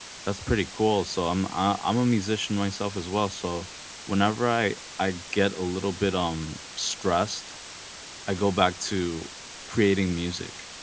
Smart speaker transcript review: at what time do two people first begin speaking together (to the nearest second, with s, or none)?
none